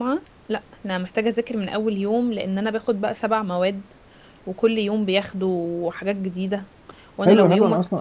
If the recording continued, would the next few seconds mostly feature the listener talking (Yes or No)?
Yes